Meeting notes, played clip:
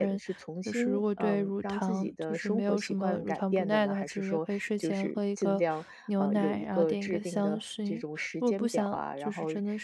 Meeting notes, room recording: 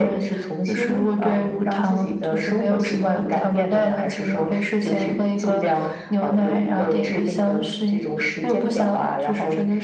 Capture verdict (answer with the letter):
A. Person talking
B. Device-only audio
B